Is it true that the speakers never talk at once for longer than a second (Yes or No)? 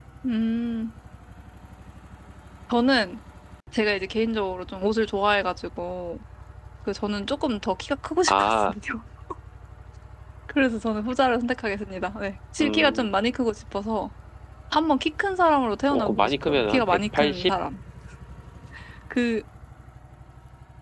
No